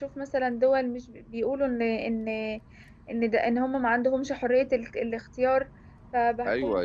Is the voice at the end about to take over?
Yes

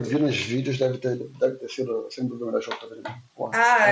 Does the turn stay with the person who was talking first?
No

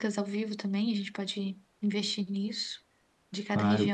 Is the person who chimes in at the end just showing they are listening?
No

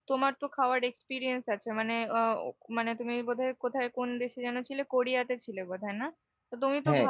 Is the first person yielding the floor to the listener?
No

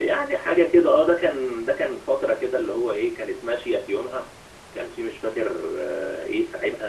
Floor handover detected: No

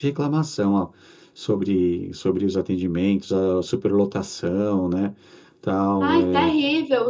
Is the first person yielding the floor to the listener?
Yes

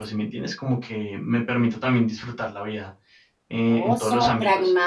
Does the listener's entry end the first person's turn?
Yes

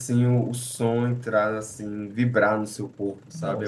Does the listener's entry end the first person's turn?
Yes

